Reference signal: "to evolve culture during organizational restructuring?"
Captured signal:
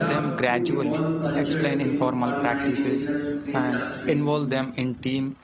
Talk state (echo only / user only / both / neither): both